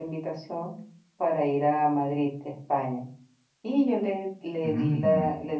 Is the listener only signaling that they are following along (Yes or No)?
Yes